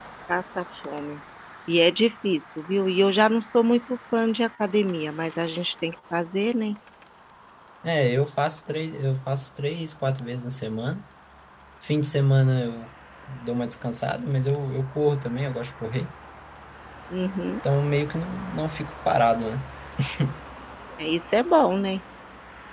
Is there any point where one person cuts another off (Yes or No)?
No